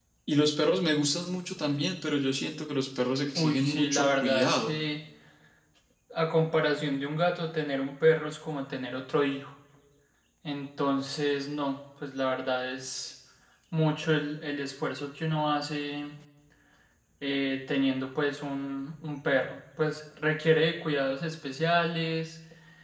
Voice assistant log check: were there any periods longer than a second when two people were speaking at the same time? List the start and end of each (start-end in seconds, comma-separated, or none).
3.4-4.8